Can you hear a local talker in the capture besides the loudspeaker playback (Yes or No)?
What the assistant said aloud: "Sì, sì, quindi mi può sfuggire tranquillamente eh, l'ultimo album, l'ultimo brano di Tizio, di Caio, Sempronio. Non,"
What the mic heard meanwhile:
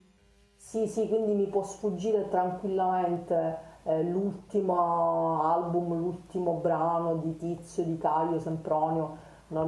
No